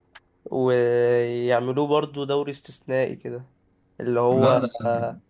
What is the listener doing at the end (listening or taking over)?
listening